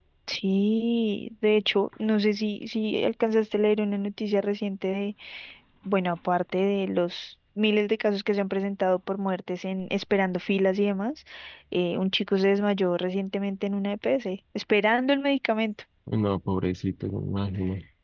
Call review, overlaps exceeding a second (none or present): none